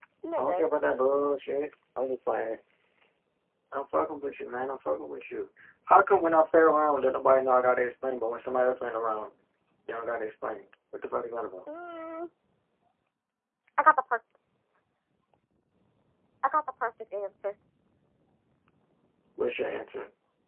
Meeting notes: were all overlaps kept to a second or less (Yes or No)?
Yes